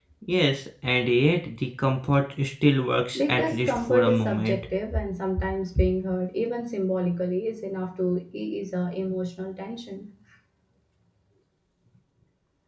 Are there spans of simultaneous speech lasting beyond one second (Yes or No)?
Yes